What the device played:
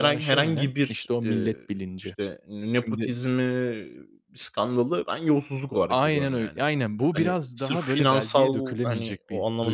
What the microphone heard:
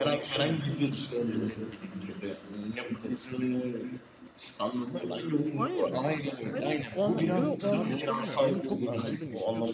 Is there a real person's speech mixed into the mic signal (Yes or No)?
Yes